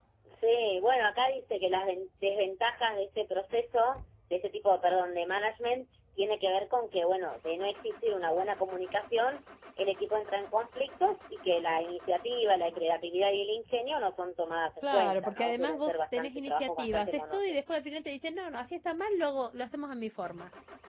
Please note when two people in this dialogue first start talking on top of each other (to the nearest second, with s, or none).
15 s